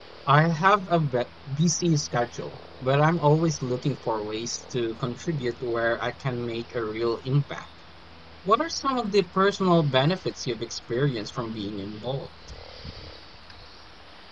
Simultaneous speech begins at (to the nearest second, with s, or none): none